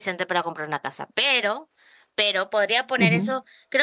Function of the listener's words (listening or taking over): listening